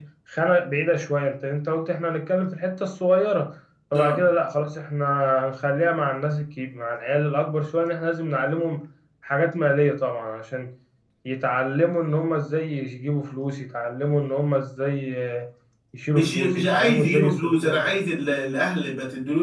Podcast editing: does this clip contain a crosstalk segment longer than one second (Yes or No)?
Yes